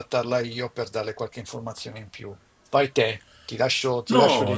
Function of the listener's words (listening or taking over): taking over